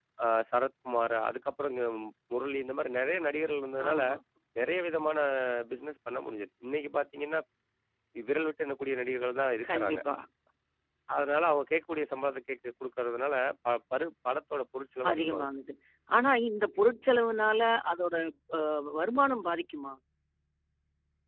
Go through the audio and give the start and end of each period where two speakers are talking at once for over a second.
none

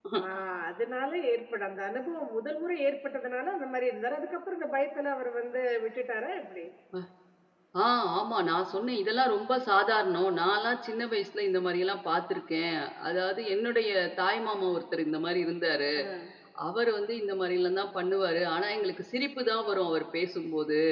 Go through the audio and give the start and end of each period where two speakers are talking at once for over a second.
none

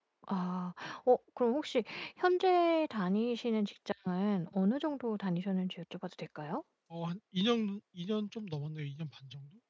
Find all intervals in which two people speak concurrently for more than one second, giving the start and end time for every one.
none

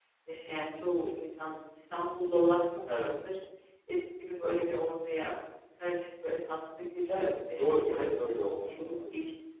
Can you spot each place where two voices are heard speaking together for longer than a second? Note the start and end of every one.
7.1-9.1

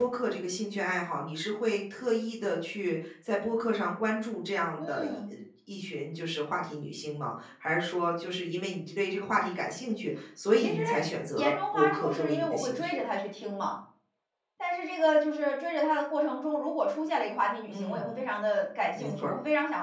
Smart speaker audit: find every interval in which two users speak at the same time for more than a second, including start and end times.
11.4-13.0

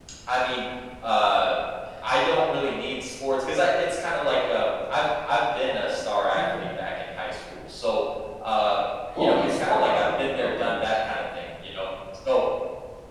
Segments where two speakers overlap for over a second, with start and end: 9.2-11.0

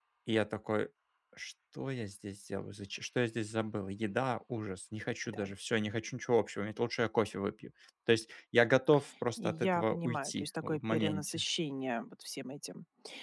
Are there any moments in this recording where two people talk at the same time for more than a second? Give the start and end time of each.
9.4-11.4

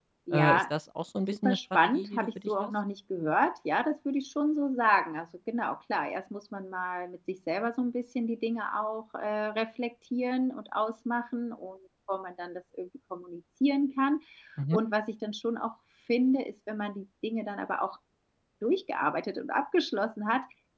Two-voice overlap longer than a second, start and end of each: 1.4-2.7

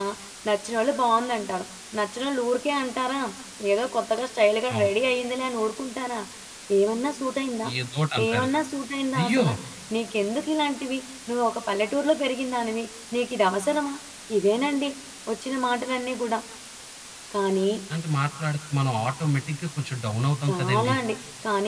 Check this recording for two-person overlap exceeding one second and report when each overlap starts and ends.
none

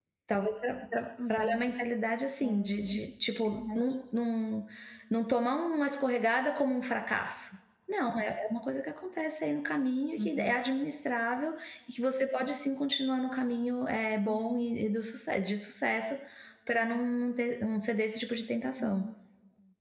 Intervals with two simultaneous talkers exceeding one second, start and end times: none

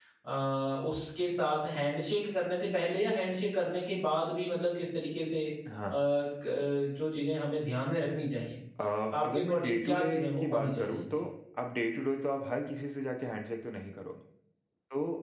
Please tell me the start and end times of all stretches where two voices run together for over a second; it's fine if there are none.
9.2-11.2

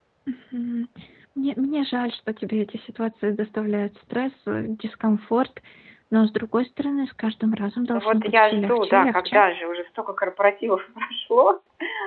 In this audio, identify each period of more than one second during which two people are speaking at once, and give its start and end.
7.9-9.4

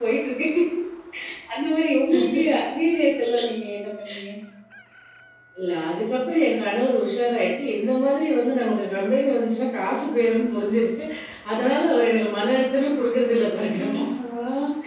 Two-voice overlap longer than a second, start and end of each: none

